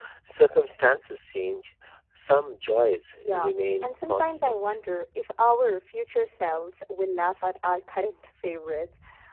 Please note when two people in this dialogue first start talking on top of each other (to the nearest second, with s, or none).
3 s